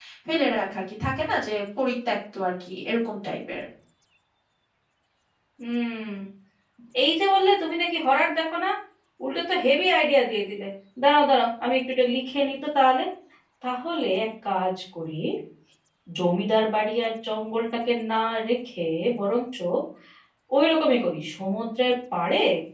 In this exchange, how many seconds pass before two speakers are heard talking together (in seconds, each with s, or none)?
none